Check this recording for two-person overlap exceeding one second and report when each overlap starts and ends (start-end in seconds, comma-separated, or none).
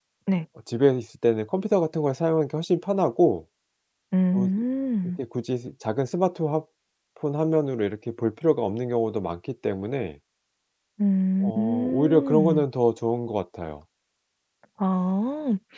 11.4-12.6